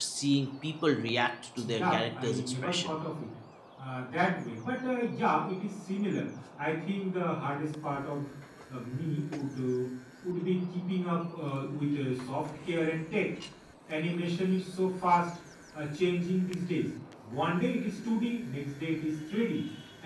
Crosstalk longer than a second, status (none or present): present